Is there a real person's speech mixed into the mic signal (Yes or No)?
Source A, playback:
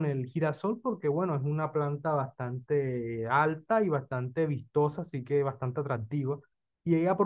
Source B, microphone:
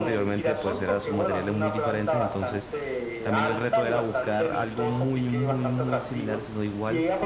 Yes